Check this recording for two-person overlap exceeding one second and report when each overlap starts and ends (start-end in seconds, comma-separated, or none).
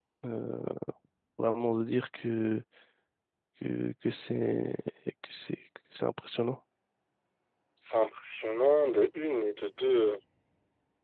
none